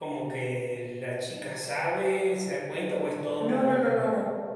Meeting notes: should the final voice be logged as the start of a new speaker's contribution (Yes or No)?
Yes